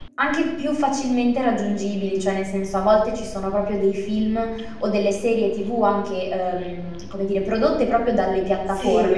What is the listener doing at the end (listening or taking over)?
listening